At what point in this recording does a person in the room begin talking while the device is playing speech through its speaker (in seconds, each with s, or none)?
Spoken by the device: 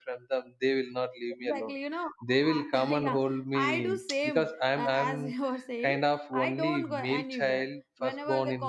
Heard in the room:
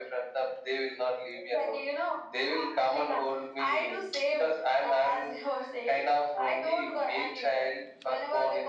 none